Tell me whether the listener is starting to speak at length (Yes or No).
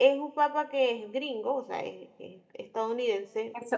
Yes